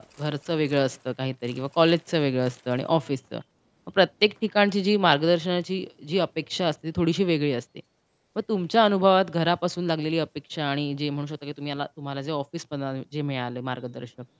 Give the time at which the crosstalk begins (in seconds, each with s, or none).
none